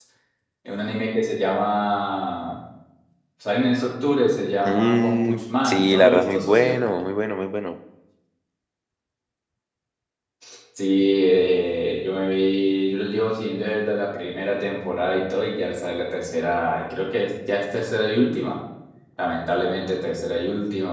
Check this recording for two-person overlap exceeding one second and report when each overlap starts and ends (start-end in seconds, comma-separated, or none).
4.7-6.8